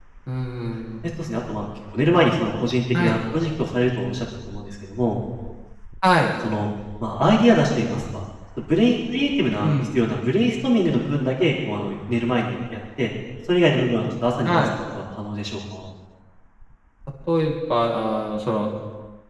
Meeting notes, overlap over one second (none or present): none